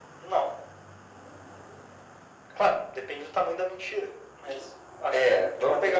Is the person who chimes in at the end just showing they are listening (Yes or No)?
No